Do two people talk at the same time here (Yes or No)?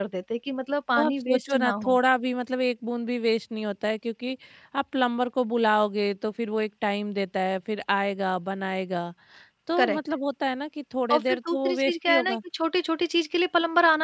Yes